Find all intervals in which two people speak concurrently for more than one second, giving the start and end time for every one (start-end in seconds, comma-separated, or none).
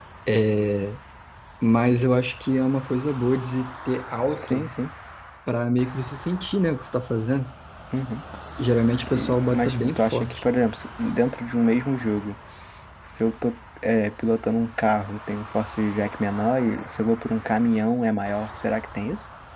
9.0-10.4